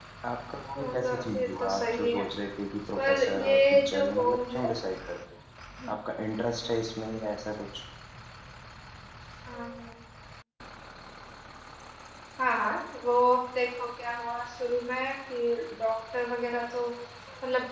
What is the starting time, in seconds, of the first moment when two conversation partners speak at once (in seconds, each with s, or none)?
0.8 s